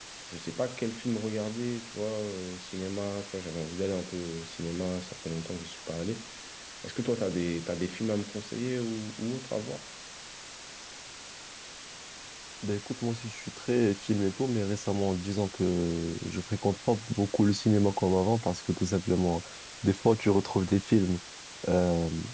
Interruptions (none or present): none